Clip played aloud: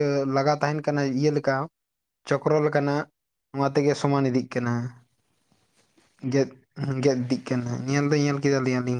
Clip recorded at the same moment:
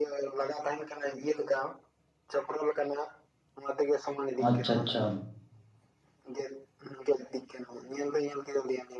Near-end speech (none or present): present